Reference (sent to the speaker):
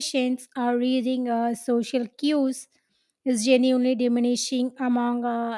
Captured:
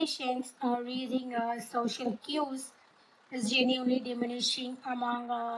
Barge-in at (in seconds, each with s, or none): none